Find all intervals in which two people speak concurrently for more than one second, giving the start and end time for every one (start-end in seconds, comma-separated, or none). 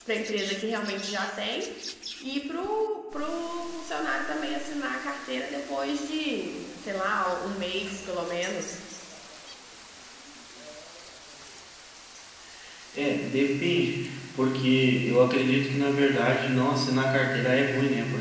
none